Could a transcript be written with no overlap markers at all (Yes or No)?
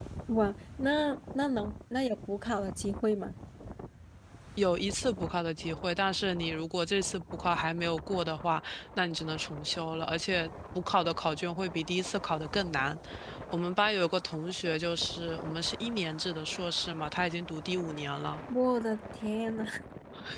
Yes